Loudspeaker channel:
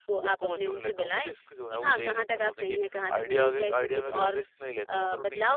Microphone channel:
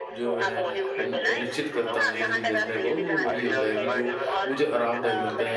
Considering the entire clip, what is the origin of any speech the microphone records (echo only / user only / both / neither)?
both